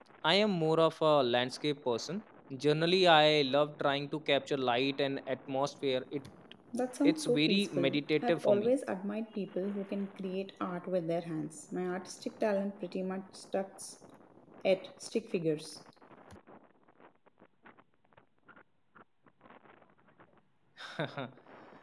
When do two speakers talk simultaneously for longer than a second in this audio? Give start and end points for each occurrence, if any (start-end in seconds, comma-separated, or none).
7.0-8.7